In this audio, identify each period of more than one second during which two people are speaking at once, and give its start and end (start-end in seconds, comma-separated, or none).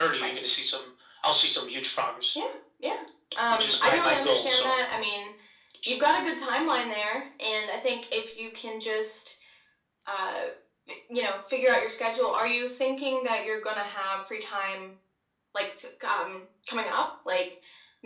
3.5-4.8